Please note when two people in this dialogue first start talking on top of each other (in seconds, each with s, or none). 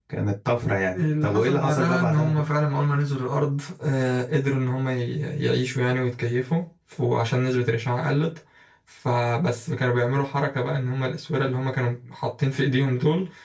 0.9 s